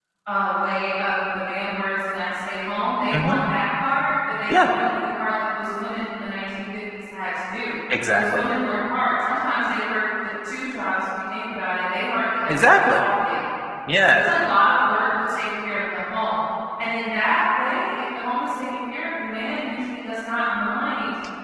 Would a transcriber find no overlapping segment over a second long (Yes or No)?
Yes